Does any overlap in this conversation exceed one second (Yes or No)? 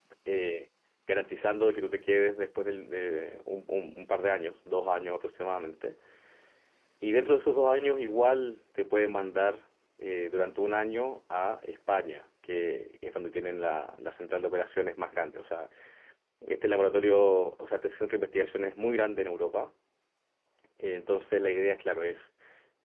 No